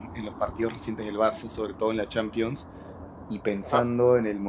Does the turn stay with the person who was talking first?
Yes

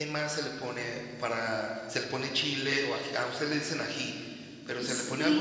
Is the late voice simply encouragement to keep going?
No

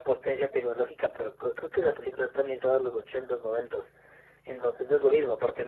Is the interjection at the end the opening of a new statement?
No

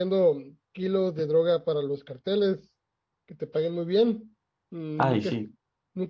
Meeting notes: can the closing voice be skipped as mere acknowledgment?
Yes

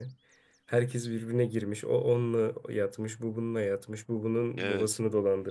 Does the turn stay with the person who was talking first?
Yes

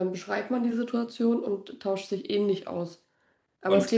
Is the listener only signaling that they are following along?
Yes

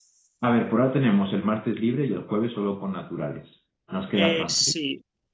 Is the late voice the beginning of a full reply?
Yes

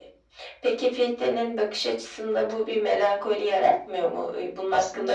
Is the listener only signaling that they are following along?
No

